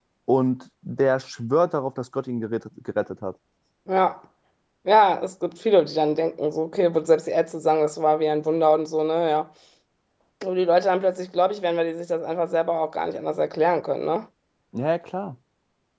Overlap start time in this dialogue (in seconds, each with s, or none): none